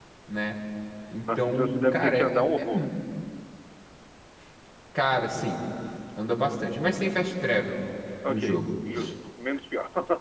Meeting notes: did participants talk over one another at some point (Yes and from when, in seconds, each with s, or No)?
Yes, from 1.4 s